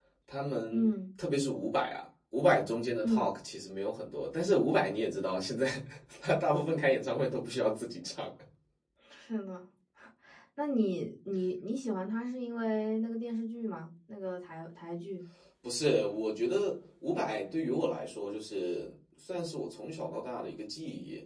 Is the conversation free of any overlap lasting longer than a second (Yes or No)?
Yes